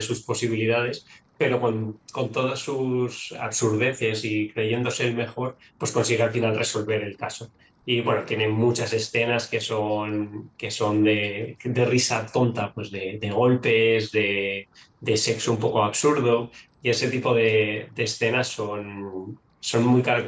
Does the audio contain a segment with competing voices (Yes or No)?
No